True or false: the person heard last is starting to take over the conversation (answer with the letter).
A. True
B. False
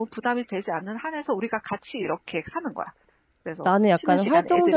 A